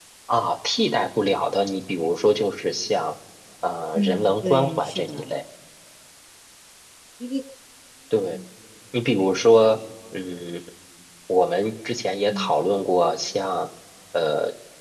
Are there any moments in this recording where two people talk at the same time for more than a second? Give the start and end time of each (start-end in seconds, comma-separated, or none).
4.0-5.2